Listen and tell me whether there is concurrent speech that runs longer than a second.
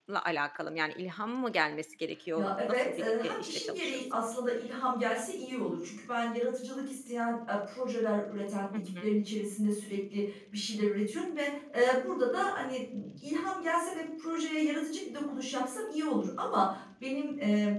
Yes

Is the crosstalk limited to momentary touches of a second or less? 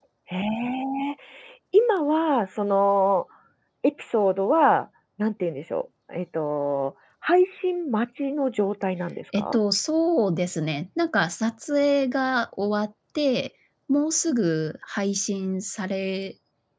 Yes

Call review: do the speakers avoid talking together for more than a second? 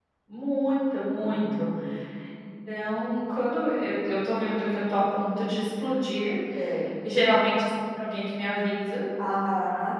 Yes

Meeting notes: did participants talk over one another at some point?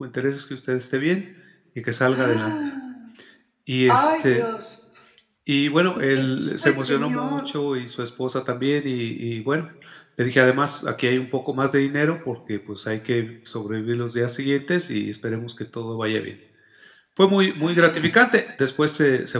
Yes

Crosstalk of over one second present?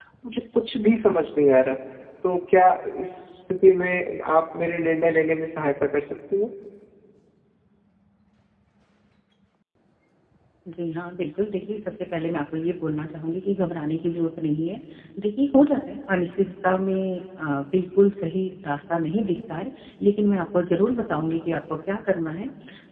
No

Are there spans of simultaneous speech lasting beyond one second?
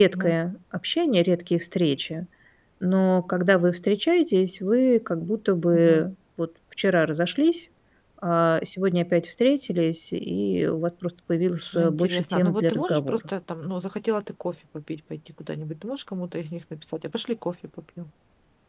Yes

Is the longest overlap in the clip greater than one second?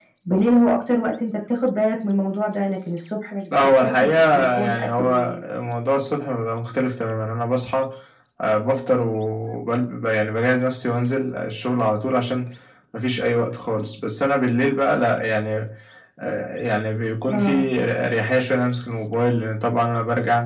Yes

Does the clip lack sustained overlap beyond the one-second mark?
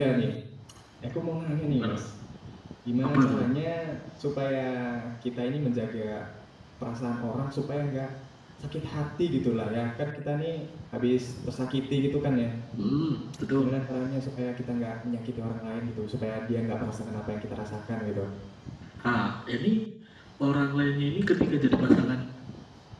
Yes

